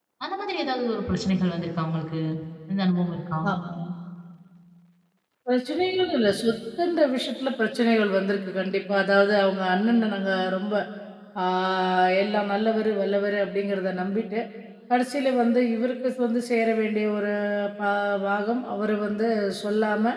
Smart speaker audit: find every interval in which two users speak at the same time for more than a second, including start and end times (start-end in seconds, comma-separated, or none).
none